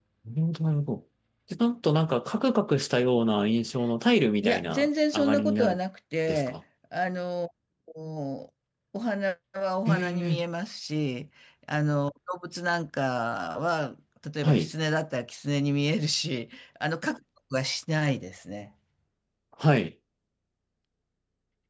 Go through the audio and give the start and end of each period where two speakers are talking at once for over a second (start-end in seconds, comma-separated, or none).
4.4-5.8